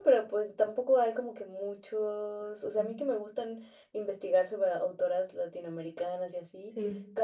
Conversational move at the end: listening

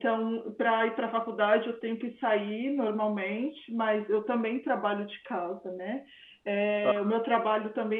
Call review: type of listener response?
listening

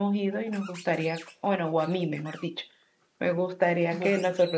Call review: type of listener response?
listening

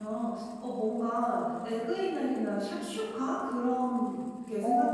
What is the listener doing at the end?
taking over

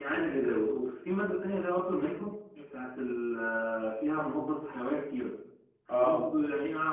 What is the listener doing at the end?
listening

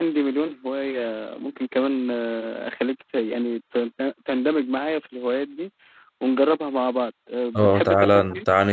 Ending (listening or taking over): taking over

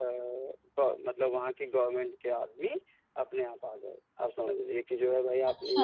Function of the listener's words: listening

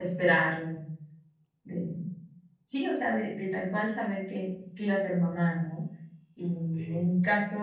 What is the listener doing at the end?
listening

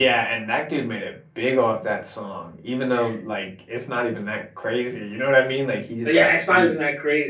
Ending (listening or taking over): taking over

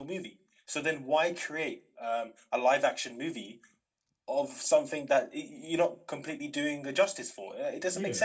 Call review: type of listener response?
taking over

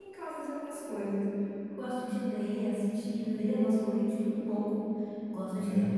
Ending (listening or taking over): listening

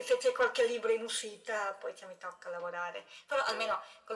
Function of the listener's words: listening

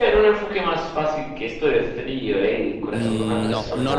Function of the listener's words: taking over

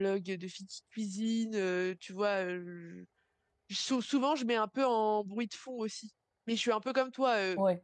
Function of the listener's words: listening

